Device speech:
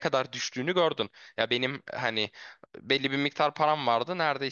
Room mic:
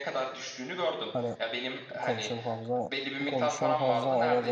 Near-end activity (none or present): present